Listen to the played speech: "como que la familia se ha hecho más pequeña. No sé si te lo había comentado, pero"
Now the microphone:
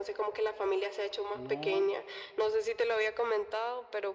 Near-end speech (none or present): present